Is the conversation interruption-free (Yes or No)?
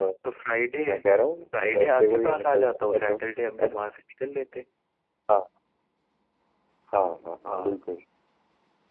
No